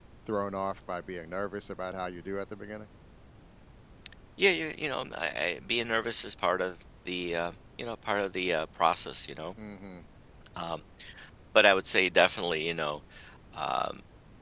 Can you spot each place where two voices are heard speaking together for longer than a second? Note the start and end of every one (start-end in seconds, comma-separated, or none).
none